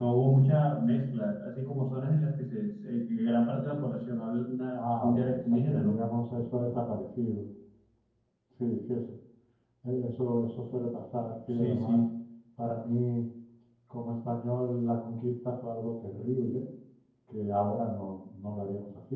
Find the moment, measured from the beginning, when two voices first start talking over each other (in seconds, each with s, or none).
4.7 s